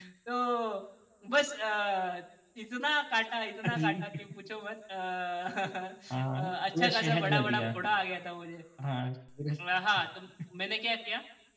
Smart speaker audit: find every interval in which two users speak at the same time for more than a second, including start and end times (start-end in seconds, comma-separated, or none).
6.4-7.6